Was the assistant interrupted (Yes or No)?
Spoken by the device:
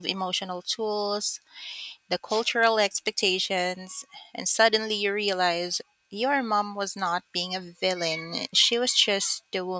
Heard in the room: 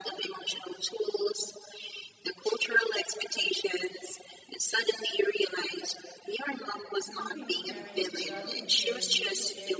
Yes